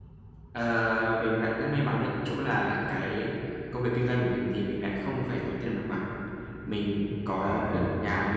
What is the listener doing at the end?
listening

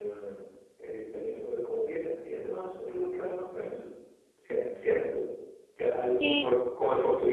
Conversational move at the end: listening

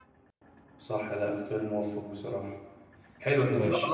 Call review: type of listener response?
listening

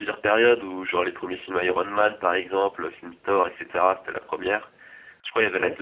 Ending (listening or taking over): listening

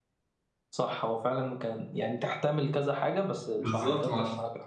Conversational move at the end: taking over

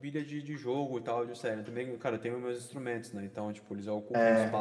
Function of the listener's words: listening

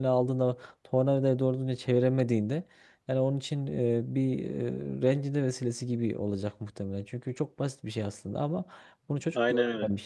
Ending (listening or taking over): listening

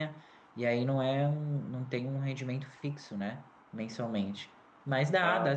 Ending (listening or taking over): listening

